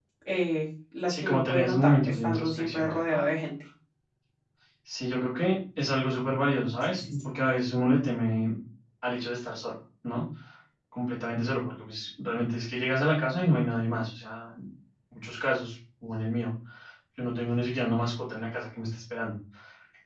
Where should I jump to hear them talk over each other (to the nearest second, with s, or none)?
1 s